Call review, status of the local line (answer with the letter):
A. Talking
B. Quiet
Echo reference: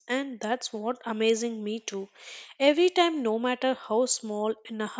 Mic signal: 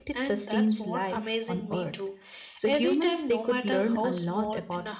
A